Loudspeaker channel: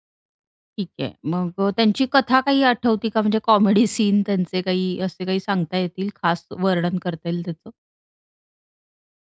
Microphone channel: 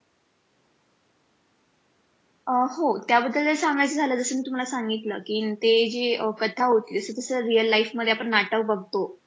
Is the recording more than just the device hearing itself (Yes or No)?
Yes